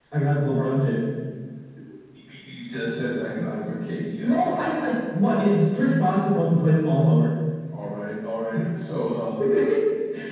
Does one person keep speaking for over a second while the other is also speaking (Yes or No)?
No